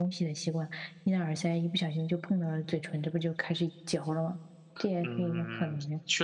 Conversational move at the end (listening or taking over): taking over